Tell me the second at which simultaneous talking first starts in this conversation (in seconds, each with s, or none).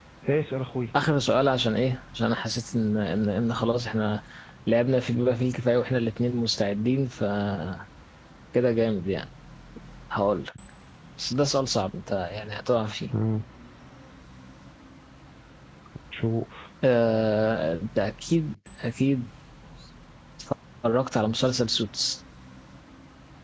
none